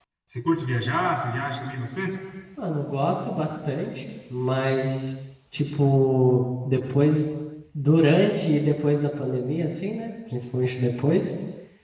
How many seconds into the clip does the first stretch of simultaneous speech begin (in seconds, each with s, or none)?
none